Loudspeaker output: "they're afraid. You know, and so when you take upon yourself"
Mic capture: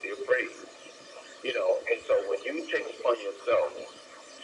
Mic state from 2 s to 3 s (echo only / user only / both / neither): echo only